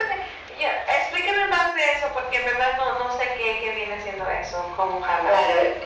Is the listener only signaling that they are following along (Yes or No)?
No